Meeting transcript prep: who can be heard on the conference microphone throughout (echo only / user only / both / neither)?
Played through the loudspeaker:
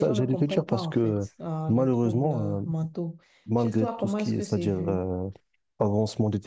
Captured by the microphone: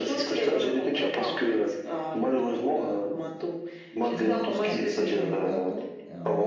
both